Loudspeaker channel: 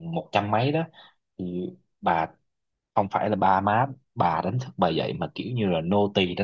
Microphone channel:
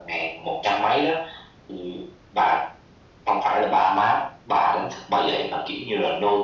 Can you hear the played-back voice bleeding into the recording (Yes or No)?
Yes